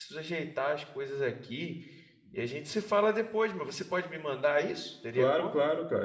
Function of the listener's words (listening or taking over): taking over